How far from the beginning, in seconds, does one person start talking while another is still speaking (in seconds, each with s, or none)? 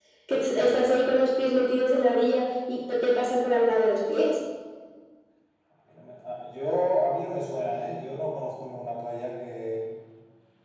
none